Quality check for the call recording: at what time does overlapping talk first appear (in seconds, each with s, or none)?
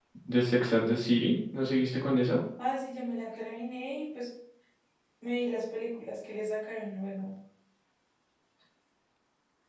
none